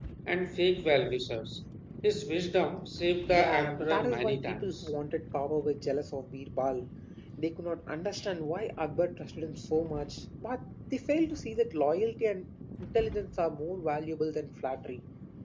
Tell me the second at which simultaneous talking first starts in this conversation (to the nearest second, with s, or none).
3 s